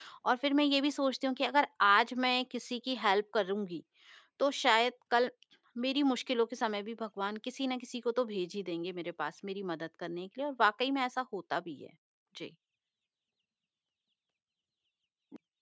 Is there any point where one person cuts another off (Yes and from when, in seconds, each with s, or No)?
No